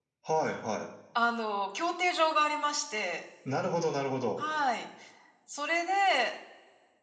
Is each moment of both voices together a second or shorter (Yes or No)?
Yes